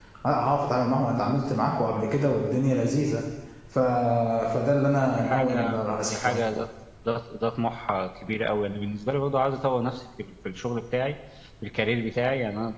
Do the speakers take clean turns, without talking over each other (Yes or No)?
No